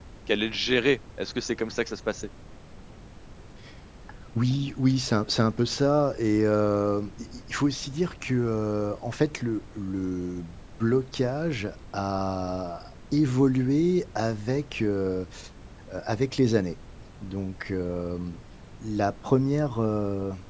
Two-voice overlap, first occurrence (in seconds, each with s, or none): none